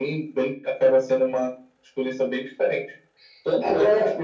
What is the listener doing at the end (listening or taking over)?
listening